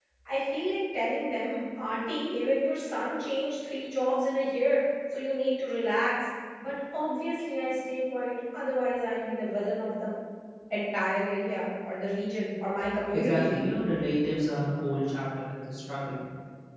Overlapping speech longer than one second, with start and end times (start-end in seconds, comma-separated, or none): none